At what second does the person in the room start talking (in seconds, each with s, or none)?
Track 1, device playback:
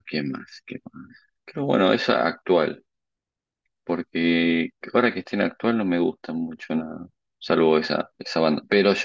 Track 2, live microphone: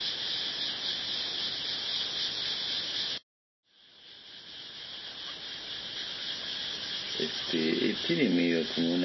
7.1 s